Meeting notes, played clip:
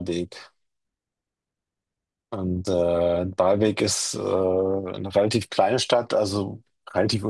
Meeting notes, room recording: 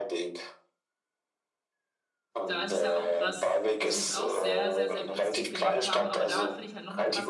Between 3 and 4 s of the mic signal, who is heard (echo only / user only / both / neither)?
both